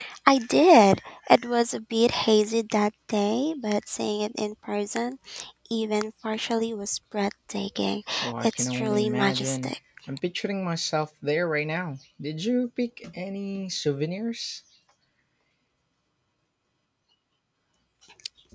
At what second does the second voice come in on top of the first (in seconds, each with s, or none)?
8.4 s